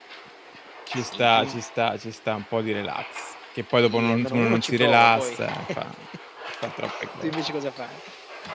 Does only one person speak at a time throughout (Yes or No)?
No